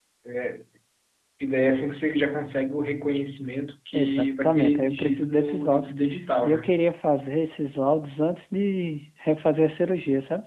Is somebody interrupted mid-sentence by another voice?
Yes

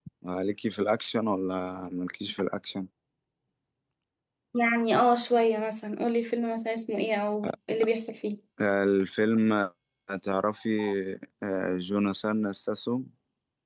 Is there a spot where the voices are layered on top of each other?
No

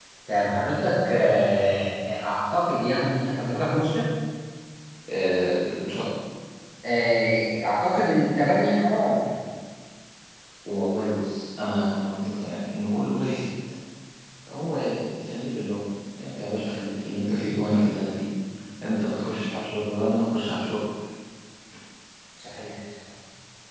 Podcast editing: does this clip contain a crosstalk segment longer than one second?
No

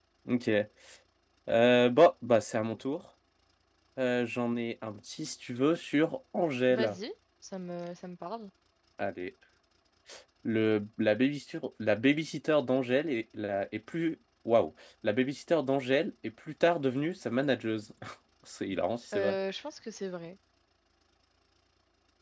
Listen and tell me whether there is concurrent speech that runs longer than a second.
No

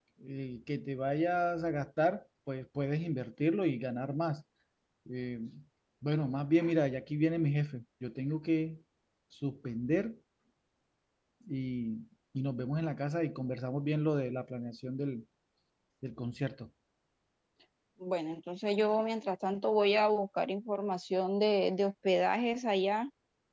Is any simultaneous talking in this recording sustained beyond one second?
No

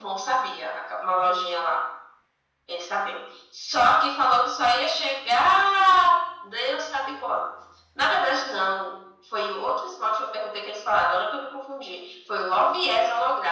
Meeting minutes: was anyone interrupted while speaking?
No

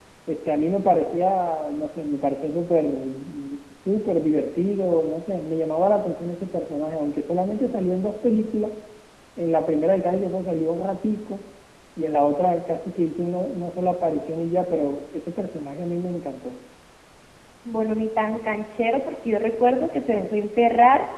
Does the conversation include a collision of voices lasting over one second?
No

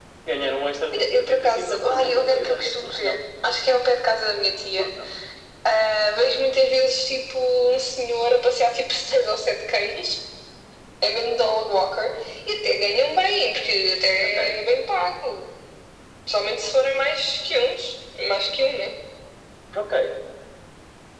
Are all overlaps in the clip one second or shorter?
No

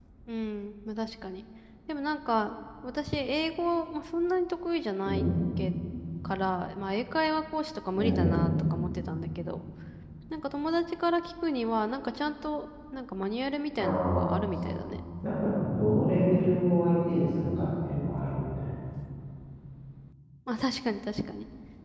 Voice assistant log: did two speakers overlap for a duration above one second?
No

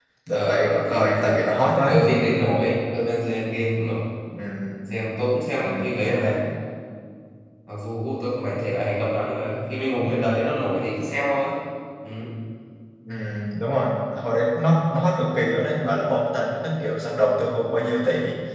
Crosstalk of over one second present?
Yes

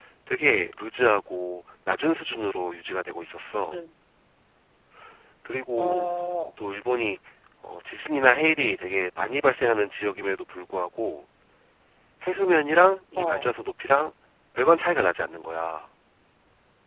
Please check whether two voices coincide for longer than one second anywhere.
No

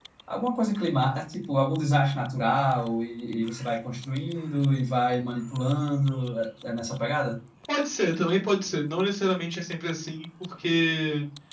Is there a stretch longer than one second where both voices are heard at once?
No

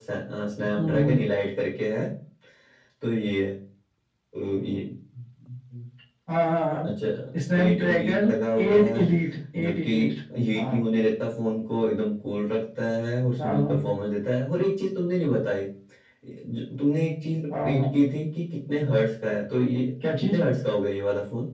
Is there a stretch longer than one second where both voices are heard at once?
Yes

